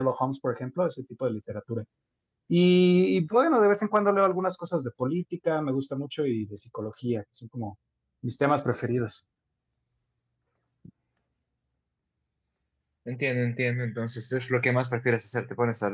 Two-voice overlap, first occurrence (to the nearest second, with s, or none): none